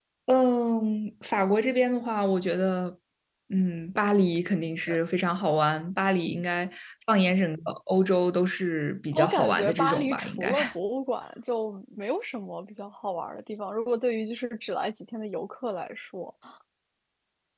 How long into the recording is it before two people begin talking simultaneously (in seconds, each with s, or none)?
9.1 s